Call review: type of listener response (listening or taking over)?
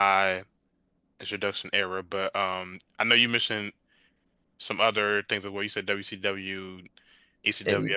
listening